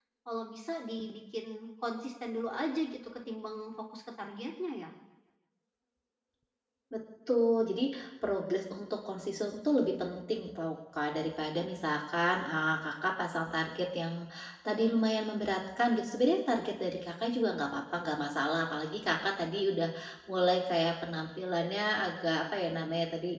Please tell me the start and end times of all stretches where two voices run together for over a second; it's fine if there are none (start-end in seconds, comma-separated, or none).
none